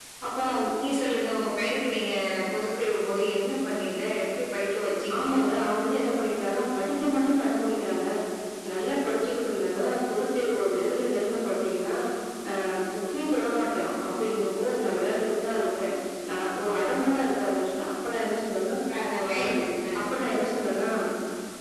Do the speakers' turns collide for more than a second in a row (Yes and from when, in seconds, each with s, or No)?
No